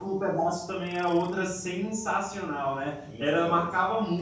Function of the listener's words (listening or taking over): listening